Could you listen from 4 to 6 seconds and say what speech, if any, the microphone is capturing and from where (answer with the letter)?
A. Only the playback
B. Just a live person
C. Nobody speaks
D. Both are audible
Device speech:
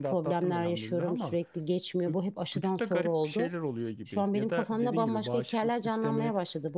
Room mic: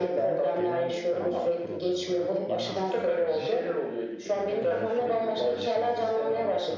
D